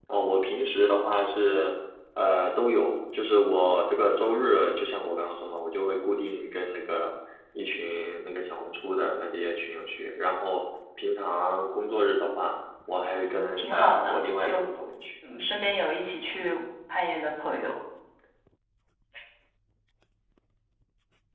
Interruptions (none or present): present